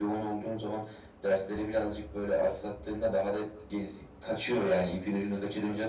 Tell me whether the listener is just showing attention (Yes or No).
No